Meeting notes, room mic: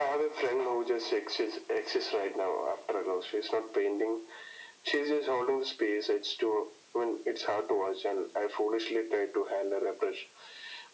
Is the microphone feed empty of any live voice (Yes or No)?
Yes